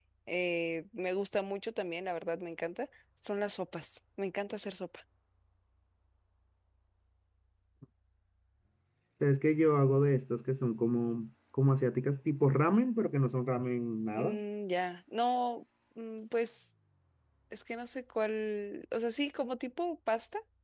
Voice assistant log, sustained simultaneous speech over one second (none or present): none